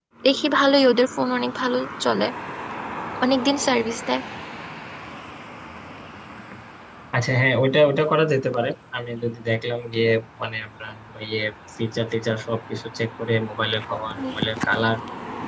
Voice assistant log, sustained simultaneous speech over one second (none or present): none